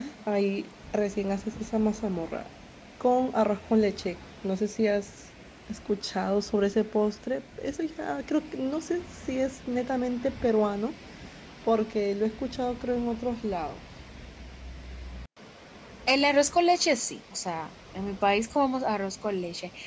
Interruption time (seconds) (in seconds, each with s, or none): none